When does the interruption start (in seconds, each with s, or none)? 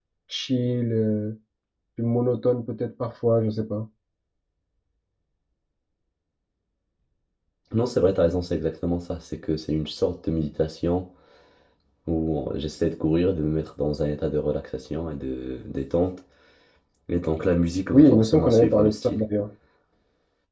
17.9 s